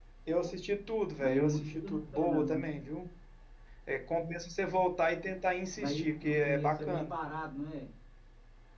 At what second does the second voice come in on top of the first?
1.2 s

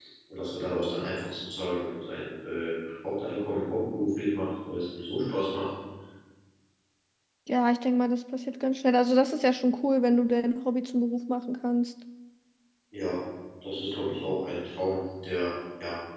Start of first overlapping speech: none

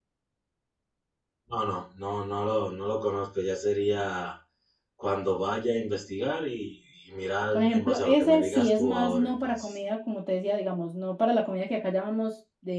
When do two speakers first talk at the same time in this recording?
7.5 s

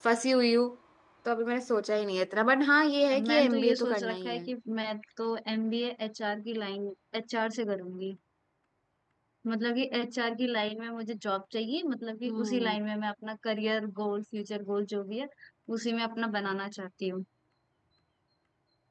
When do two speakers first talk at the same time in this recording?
3.1 s

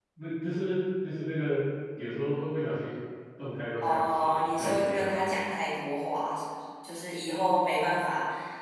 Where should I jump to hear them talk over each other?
3.8 s

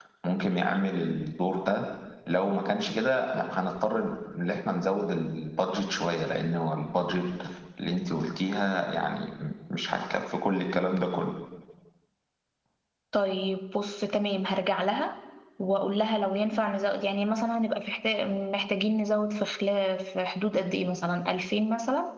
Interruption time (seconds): none

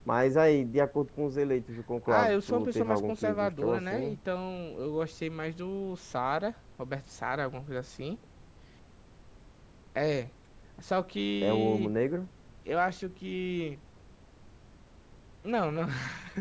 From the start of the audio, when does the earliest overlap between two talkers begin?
2.0 s

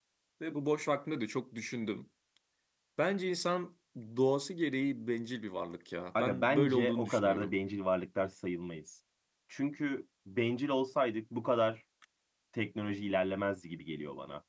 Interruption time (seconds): 6.2 s

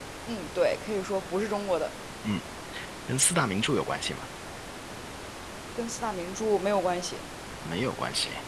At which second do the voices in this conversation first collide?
none

